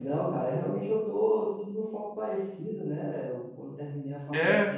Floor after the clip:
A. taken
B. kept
B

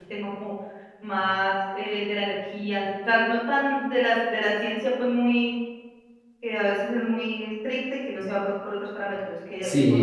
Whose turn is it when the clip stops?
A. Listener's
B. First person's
A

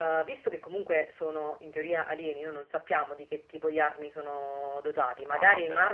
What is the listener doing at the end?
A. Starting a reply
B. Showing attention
B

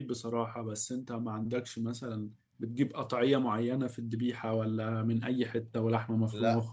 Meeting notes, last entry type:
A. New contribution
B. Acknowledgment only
A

